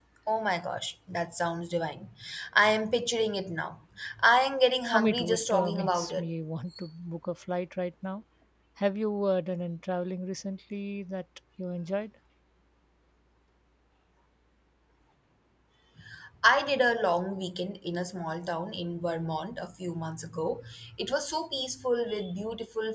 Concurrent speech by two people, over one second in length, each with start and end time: 4.9-6.3

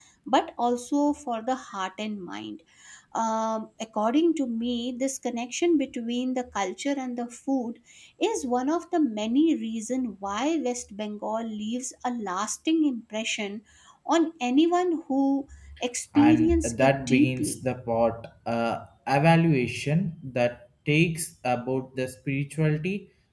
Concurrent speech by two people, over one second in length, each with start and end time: 16.2-17.6

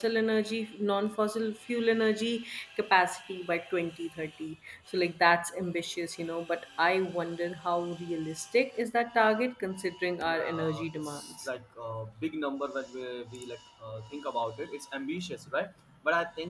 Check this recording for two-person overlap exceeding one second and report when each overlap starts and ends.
10.3-11.5

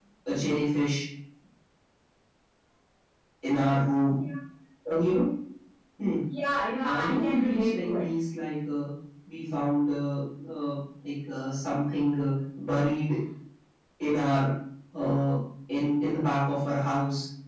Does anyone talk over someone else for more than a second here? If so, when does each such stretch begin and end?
6.8-8.0

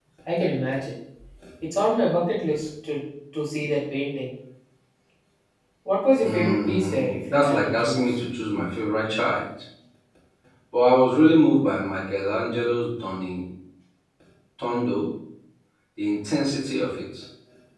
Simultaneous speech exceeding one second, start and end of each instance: 6.2-8.2

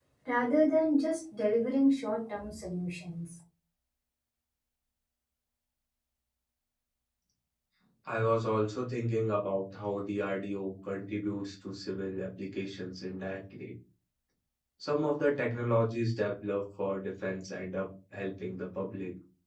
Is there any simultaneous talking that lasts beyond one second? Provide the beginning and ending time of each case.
none

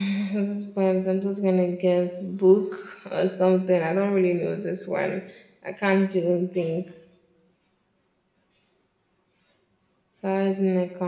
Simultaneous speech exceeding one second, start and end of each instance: none

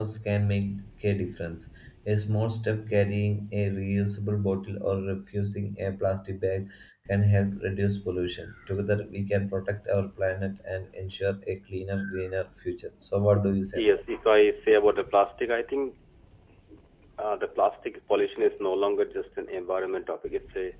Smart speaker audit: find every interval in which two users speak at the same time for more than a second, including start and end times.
none

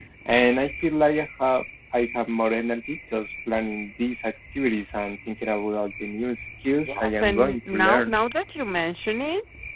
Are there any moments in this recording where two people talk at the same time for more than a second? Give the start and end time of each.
6.9-8.1

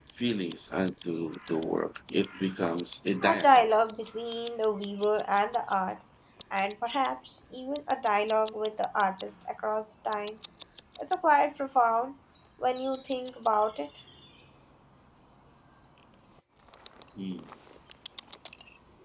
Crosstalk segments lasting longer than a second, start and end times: none

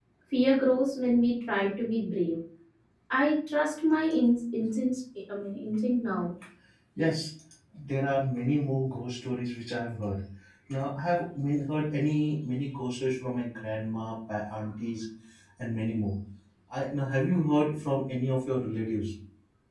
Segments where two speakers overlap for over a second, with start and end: none

